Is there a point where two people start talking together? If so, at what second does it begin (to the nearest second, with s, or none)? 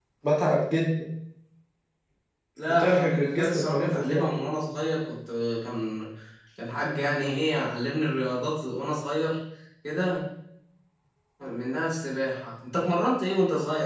3 s